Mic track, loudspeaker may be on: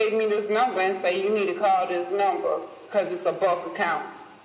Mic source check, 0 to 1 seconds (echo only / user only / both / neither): echo only